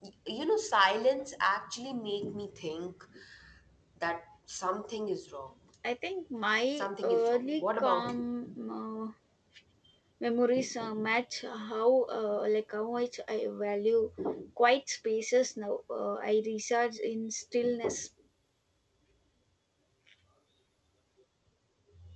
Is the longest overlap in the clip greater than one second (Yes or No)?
Yes